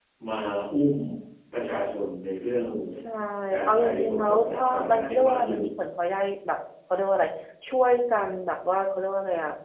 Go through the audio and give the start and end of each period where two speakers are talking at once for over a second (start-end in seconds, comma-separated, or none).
3.6-5.6